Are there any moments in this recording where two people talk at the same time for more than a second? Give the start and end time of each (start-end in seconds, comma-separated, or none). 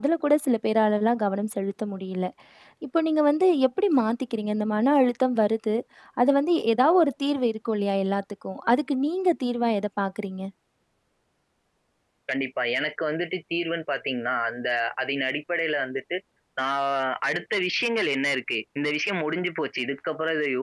none